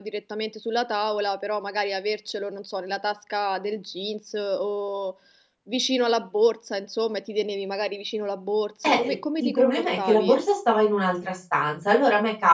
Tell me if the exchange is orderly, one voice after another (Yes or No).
No